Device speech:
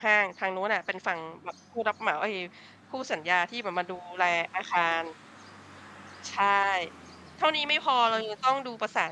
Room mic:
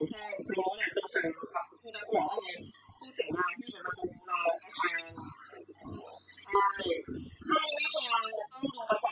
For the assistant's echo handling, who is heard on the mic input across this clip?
echo only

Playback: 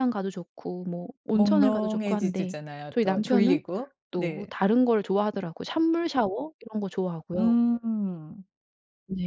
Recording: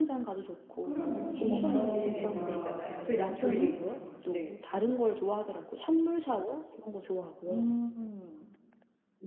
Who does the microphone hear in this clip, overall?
both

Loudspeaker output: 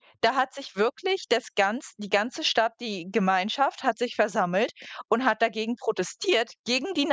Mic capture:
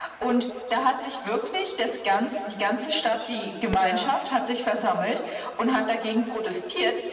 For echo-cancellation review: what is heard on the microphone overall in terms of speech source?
both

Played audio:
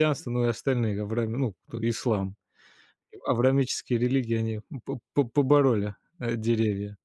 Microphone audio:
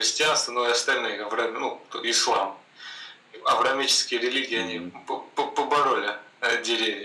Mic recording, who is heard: both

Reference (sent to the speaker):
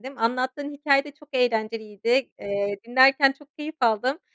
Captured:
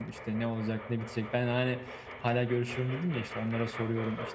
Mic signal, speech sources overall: user only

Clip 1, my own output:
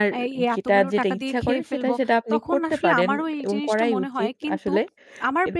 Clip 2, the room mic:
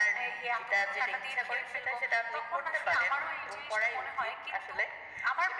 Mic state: echo only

